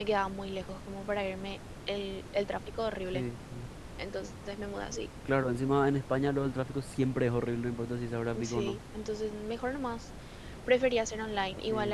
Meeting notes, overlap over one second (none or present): none